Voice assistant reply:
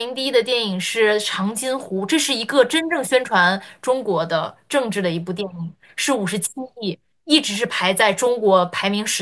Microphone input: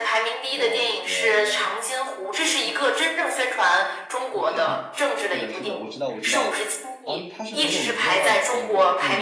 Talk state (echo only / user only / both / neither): both